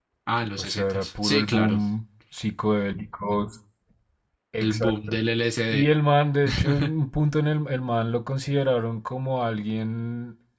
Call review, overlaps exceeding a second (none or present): present